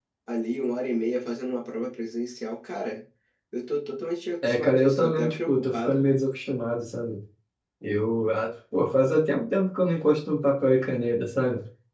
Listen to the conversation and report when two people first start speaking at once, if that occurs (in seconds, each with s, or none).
4.4 s